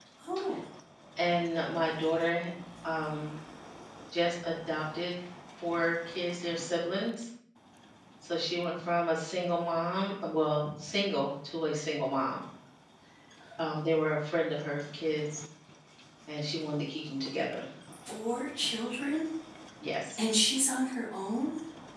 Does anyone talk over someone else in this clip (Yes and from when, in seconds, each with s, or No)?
No